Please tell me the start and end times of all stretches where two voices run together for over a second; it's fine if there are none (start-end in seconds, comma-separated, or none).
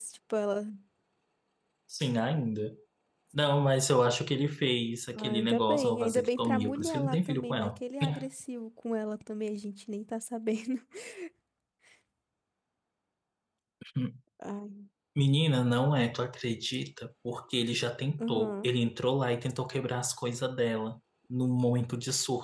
5.1-7.8